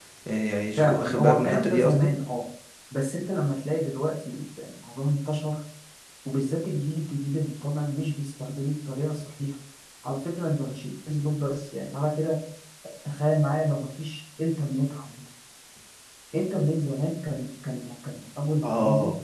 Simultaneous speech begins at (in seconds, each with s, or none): 0.8 s